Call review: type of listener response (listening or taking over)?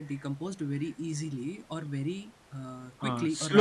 taking over